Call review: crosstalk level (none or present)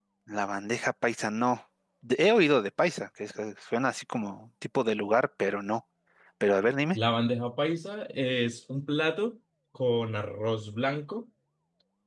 none